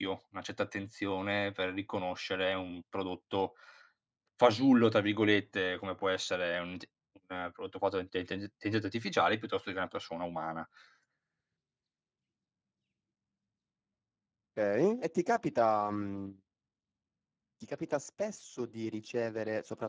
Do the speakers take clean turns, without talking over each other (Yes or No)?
Yes